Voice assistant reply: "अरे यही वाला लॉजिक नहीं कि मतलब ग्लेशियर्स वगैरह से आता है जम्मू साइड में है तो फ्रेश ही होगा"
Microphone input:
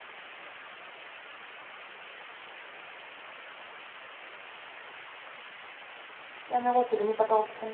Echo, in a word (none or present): none